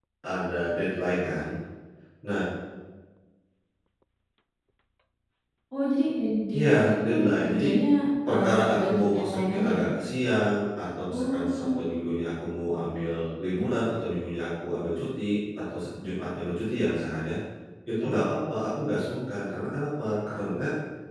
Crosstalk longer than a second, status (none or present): present